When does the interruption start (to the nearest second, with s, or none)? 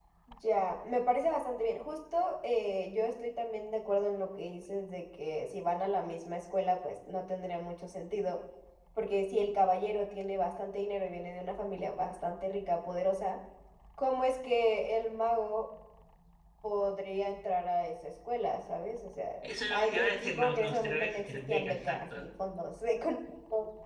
19 s